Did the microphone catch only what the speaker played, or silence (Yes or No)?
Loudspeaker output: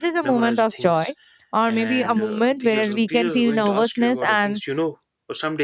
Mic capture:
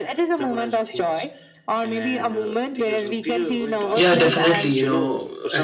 No